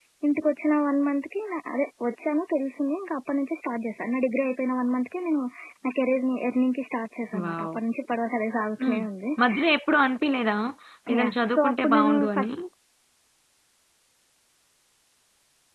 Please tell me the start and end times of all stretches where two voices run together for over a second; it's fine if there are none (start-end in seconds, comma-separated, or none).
11.2-12.5